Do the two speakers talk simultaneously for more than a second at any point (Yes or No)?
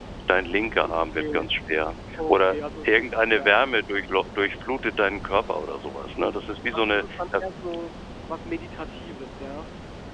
Yes